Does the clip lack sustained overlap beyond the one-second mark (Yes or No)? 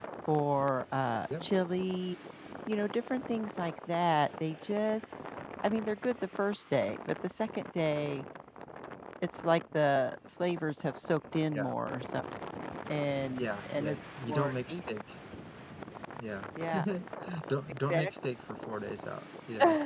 No